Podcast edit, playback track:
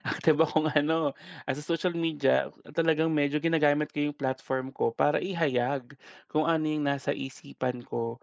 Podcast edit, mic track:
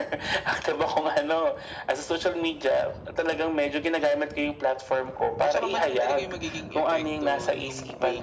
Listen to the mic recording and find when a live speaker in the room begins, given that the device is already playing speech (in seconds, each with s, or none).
5.4 s